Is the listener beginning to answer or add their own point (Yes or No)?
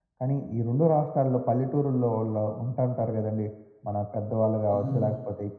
No